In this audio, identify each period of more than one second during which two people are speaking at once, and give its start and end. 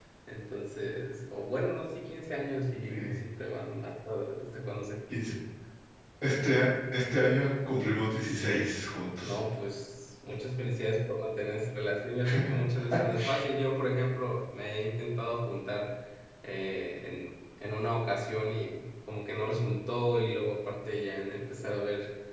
none

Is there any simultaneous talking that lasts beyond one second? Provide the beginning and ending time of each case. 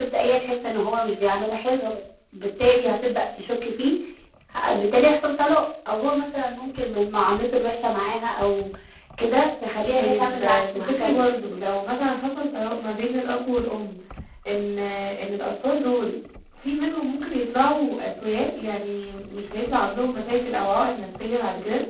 10.0-11.2

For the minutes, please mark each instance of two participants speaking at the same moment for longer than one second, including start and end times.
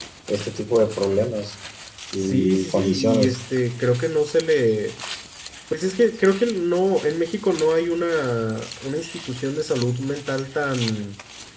2.2-3.4

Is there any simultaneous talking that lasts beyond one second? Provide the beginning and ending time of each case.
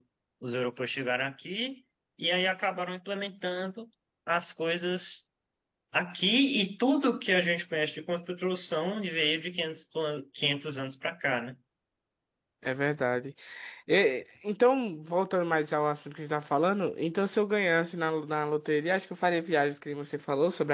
none

